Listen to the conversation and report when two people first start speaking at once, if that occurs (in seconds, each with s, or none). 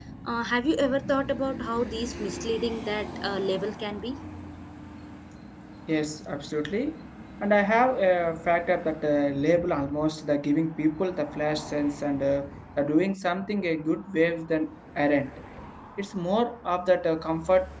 none